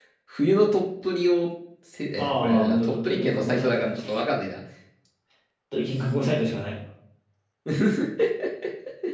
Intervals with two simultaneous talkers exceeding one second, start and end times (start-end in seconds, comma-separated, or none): 2.1-4.1